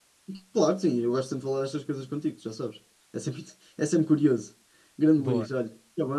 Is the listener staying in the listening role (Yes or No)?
Yes